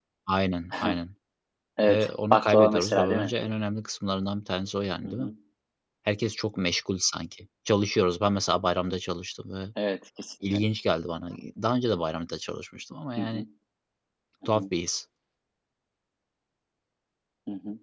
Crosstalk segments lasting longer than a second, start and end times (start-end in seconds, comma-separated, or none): 1.9-3.3